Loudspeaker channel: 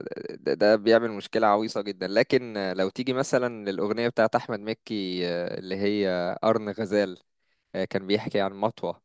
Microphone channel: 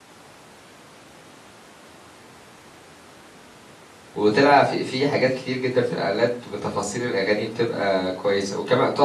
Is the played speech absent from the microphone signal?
Yes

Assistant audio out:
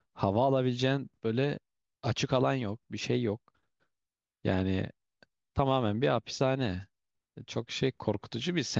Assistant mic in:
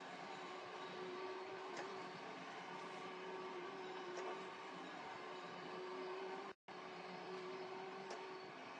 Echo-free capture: Yes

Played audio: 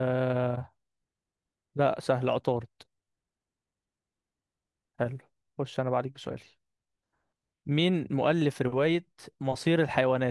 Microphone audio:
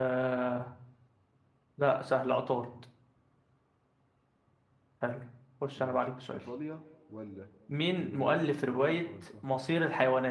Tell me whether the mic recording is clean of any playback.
No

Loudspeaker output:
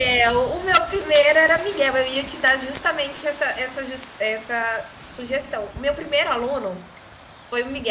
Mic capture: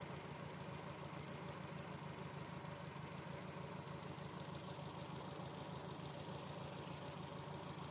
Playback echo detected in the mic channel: No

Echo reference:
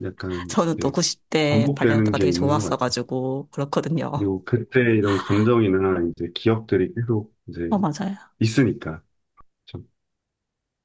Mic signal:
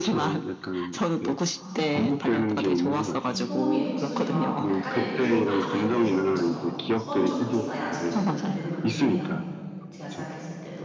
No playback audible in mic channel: No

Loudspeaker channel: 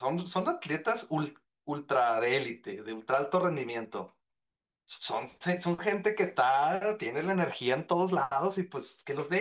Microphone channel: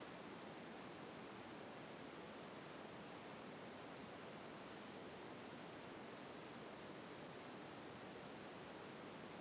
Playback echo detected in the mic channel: No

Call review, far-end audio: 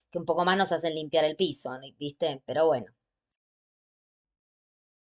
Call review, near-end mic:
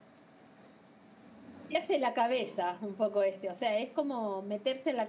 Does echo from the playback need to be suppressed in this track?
No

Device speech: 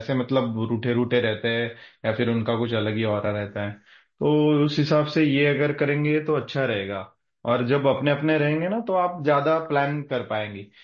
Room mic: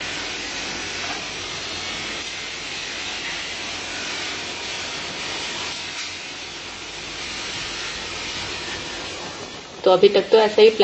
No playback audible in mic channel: Yes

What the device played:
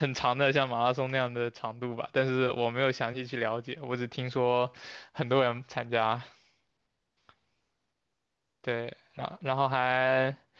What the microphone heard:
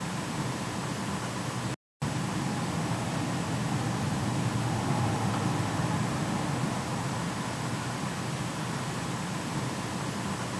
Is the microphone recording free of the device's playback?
Yes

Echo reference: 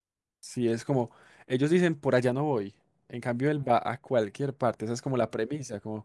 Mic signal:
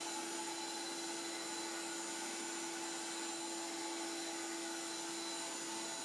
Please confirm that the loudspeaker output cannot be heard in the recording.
Yes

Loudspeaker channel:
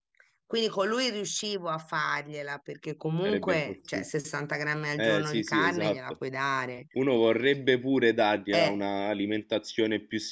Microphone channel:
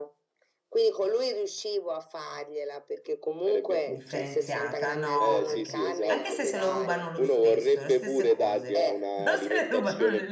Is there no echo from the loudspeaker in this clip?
No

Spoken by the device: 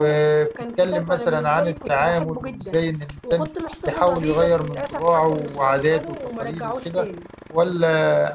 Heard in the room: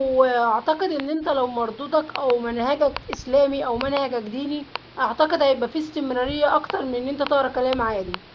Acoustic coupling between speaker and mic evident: No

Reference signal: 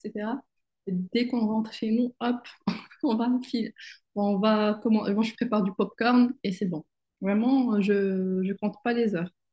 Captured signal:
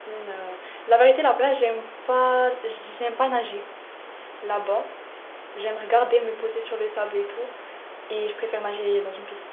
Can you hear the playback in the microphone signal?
No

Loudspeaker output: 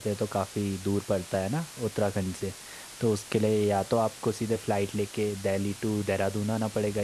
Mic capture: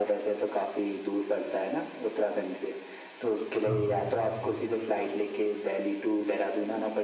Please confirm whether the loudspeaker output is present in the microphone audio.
Yes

